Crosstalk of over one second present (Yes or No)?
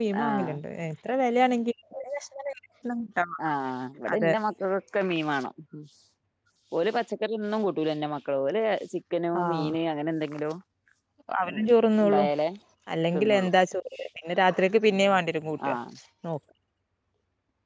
No